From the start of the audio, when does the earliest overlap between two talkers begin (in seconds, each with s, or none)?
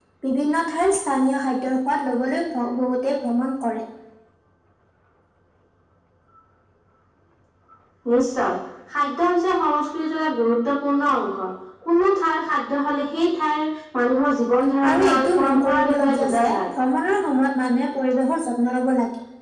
14.9 s